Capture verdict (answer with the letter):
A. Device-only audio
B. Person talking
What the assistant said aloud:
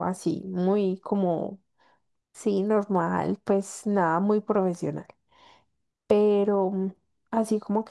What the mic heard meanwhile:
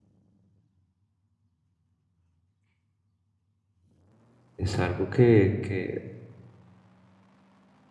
B